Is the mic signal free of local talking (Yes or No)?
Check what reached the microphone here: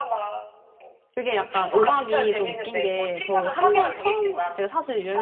No